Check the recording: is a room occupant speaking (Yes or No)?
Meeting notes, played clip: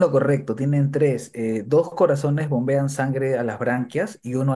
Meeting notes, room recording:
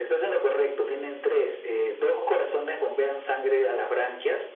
No